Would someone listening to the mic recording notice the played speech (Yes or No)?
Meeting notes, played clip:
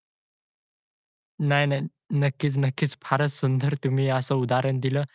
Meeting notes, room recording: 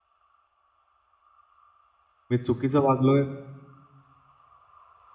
No